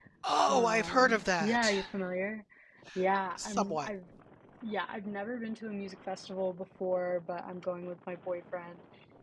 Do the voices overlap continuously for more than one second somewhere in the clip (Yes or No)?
Yes